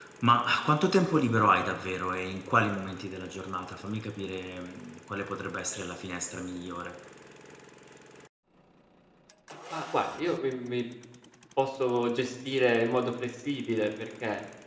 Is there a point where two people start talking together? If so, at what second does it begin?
none

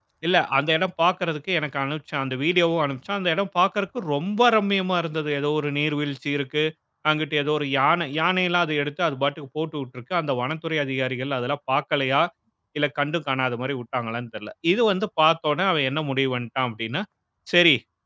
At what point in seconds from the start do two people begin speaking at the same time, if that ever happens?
none

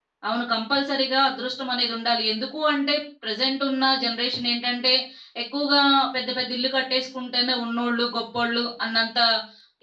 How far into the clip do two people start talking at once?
none

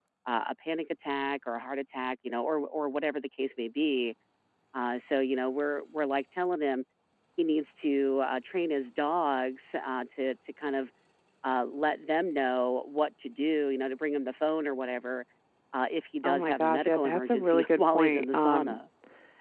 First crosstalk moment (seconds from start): 16.2 s

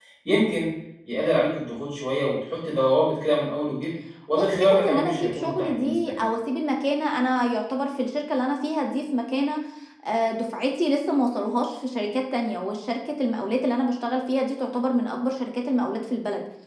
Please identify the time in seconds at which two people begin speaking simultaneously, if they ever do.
4.3 s

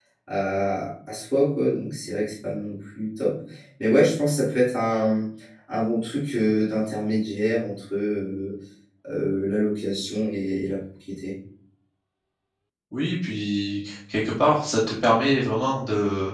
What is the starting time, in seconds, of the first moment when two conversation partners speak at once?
none

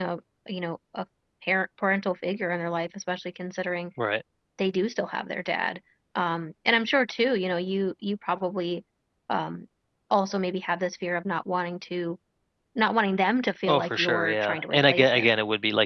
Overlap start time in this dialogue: 13.7 s

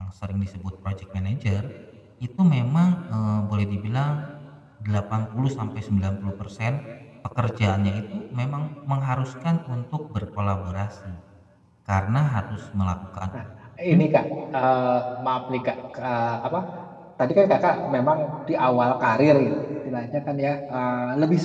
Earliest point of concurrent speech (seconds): none

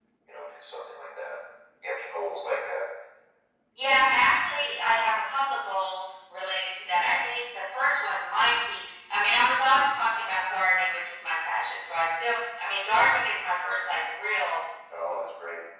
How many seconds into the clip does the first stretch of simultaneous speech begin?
none

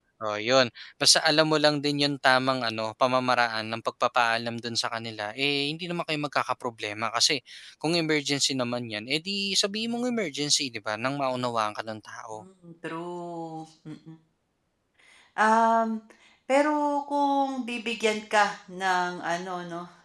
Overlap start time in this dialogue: none

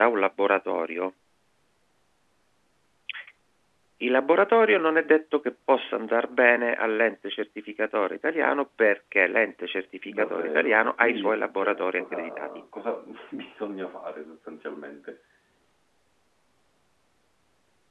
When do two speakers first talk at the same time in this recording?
10.1 s

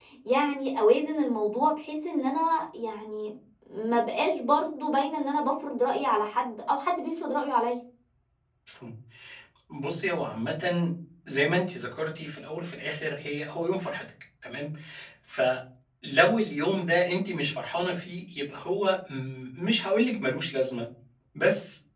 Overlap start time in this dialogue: none

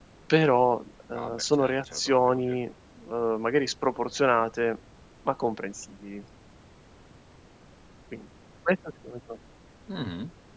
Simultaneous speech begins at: 1.1 s

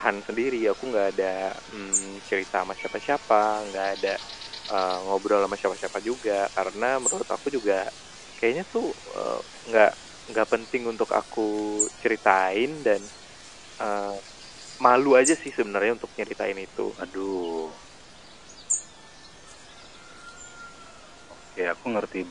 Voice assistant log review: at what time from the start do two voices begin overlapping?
none

